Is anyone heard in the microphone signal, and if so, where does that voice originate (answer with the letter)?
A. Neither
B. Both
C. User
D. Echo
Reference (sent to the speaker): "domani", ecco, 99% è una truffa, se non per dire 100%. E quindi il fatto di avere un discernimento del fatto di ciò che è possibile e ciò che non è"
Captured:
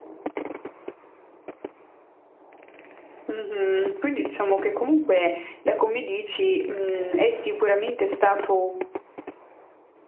C